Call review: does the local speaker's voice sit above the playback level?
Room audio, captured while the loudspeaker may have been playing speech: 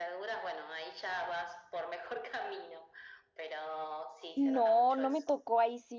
Yes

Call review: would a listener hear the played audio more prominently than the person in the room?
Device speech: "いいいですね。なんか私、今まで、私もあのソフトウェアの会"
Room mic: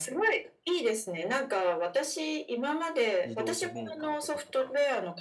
Yes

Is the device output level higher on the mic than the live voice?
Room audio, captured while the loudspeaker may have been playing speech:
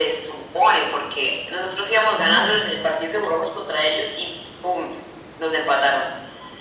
Yes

